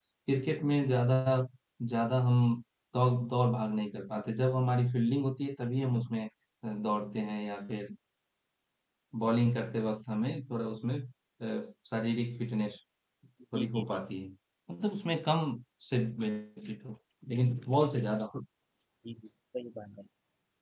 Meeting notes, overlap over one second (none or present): none